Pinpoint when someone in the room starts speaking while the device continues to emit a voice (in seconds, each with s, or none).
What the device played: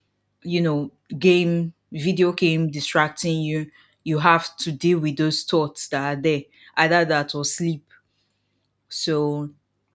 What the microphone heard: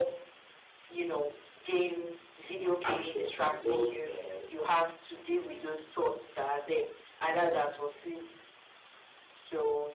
2.8 s